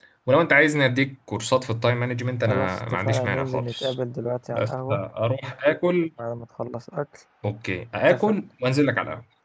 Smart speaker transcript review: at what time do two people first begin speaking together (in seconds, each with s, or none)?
2.5 s